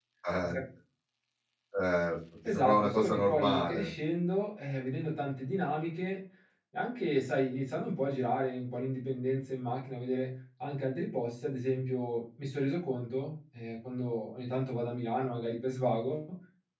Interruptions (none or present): present